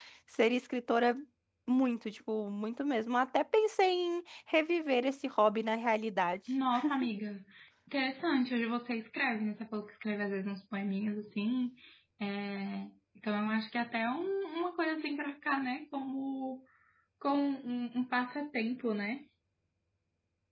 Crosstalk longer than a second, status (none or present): none